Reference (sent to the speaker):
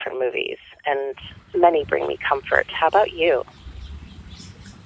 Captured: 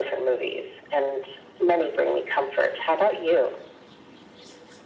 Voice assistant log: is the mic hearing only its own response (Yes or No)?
Yes